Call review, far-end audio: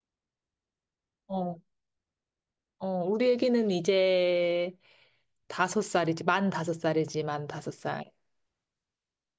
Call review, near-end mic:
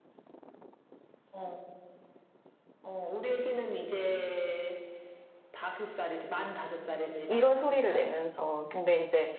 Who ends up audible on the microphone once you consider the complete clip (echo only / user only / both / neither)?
both